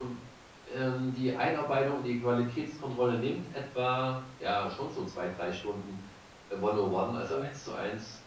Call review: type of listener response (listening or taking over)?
listening